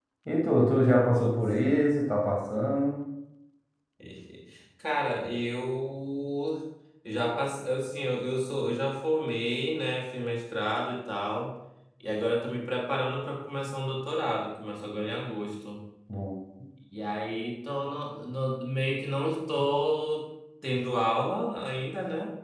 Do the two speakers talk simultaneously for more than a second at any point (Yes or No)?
No